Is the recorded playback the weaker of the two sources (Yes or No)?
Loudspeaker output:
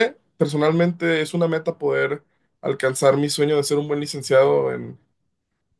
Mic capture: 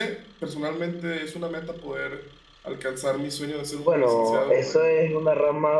Yes